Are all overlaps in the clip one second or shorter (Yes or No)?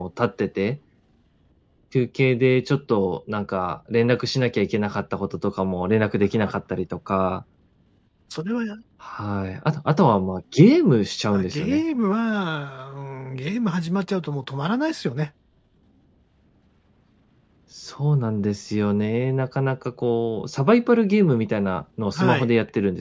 Yes